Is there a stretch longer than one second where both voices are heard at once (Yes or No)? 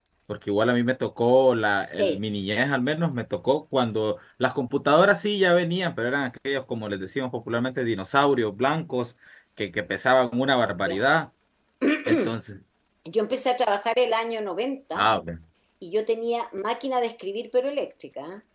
No